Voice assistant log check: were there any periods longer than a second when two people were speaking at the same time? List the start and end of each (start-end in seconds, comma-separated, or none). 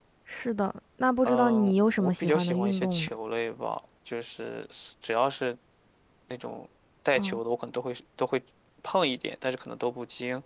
1.2-3.1